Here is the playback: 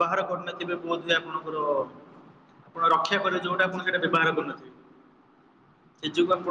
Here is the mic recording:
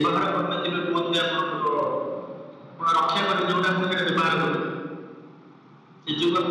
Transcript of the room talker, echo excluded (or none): none